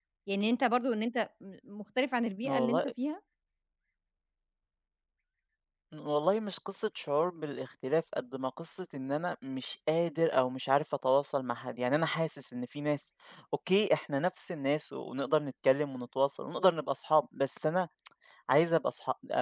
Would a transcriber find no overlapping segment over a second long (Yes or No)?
Yes